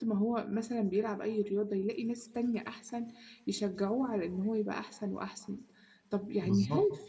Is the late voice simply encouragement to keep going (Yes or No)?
Yes